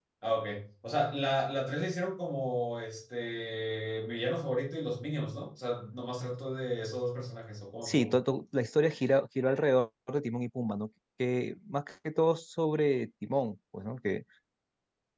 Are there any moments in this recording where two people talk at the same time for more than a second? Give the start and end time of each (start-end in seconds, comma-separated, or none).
none